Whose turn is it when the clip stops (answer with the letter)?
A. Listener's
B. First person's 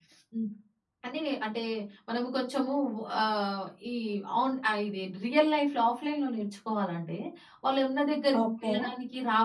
B